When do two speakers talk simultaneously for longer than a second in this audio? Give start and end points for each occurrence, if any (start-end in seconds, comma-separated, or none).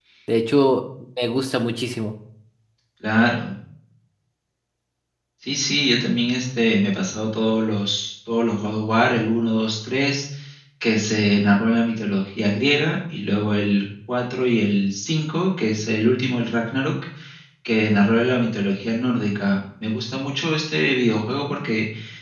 none